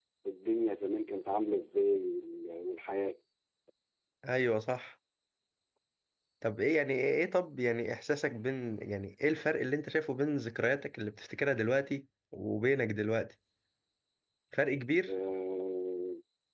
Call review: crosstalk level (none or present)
none